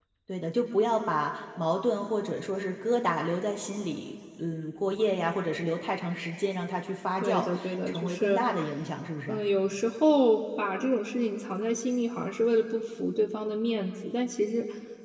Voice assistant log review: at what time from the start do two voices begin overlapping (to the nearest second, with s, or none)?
7 s